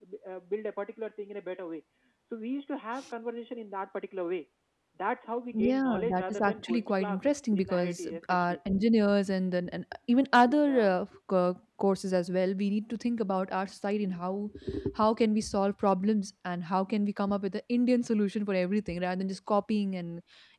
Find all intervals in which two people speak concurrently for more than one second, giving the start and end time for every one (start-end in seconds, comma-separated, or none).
5.5-8.6